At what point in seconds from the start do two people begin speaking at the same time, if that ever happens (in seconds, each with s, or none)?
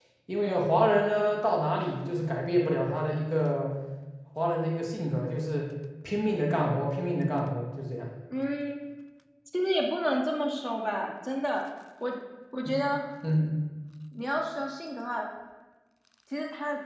none